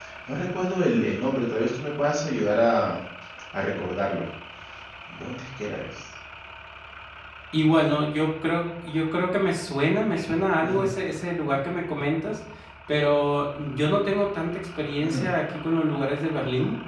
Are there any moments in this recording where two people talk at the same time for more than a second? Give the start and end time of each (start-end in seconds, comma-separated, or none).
none